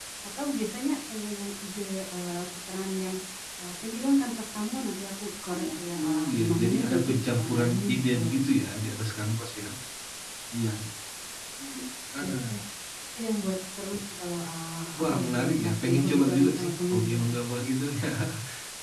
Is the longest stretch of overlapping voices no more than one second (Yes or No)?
No